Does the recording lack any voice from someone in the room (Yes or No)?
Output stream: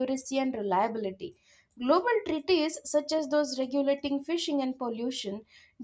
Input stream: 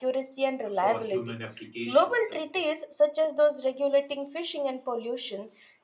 No